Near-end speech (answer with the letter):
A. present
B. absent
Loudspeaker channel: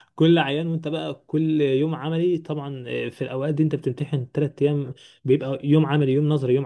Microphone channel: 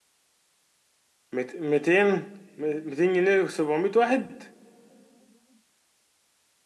A